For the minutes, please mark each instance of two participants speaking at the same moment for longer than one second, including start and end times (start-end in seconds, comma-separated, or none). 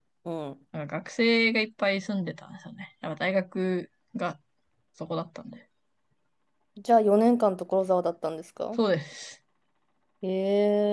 none